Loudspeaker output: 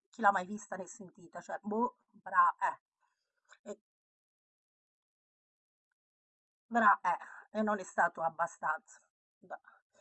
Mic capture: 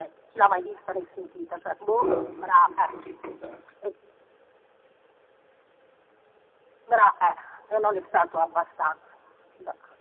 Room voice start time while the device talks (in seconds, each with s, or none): 2.0 s